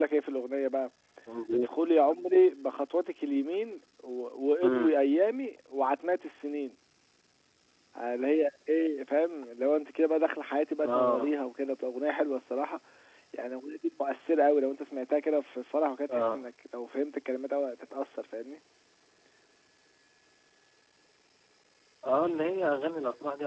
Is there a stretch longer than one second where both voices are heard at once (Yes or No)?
No